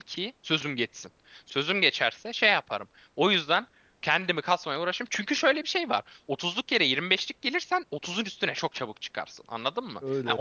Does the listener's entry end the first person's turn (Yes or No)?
No